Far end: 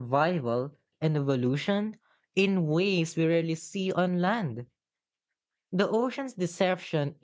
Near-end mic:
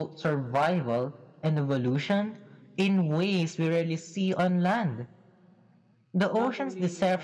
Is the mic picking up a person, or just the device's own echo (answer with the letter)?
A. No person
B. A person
B